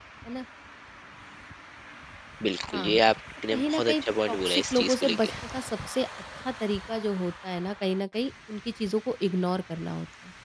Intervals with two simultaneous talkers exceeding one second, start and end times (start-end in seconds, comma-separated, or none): 3.5-5.3